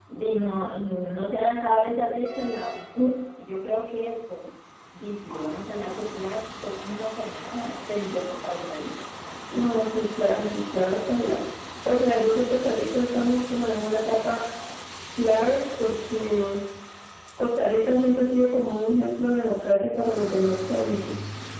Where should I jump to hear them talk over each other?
none

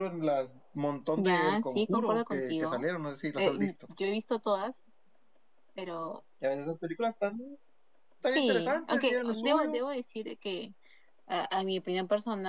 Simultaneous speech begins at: 1.2 s

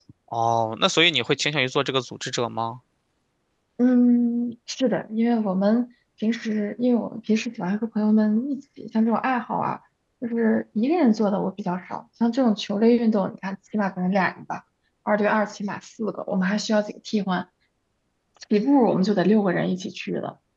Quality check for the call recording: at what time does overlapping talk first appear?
none

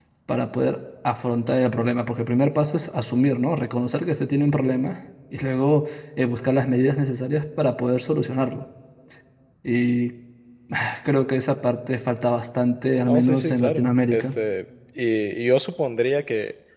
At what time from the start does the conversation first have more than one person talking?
13.1 s

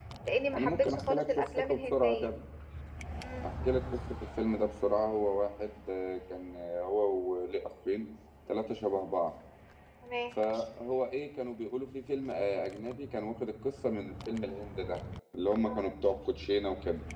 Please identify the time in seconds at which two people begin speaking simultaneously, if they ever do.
0.6 s

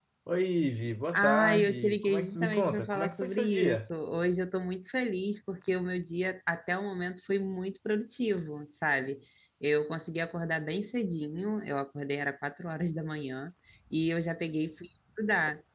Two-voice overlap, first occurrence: 1.1 s

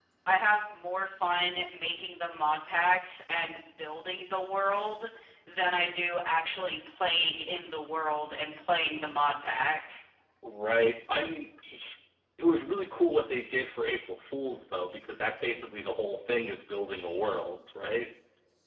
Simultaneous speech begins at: none

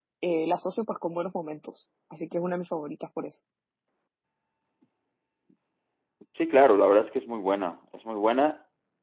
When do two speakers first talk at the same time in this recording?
none

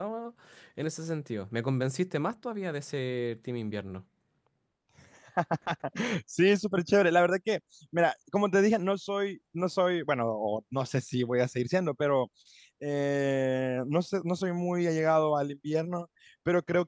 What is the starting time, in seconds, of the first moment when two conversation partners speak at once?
none

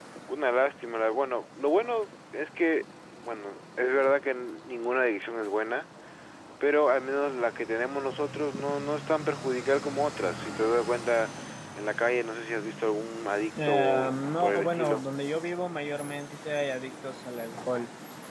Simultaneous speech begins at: 13.6 s

